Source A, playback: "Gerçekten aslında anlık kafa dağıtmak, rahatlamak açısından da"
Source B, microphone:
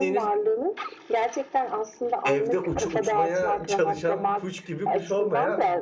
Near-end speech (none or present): present